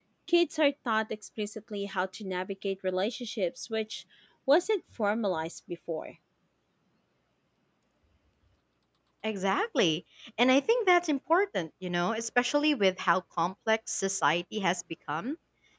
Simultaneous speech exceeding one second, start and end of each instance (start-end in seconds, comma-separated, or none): none